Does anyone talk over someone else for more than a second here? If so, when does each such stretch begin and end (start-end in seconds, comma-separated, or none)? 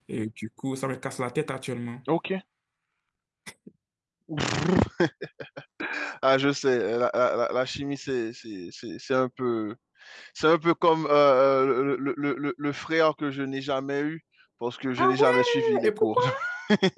15.0-16.2